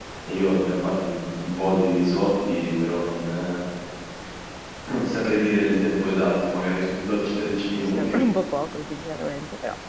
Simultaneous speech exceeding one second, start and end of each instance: none

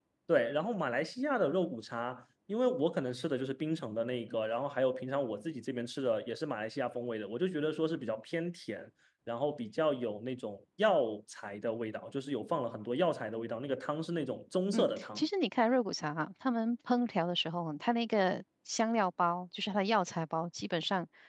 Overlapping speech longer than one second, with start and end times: none

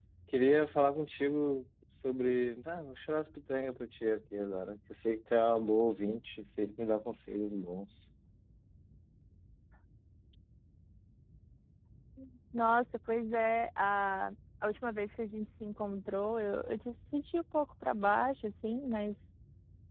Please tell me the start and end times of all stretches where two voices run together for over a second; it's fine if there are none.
none

